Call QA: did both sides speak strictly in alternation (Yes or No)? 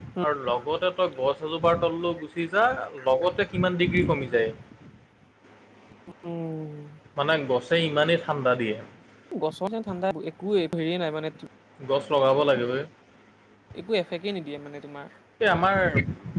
Yes